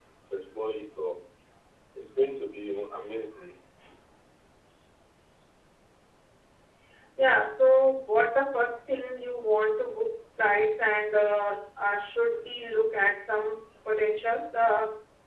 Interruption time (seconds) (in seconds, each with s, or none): none